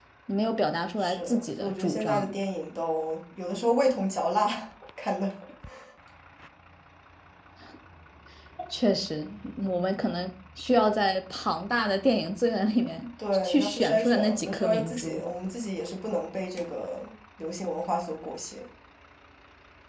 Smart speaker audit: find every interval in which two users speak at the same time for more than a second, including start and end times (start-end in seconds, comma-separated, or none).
1.0-2.3, 13.4-15.2